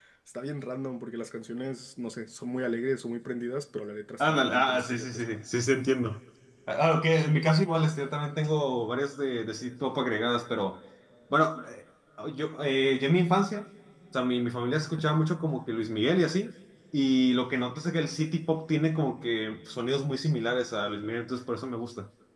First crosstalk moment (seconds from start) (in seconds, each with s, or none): 4.2 s